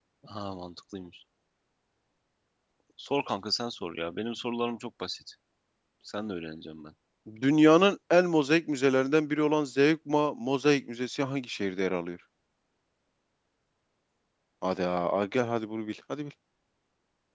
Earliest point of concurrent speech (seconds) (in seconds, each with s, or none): none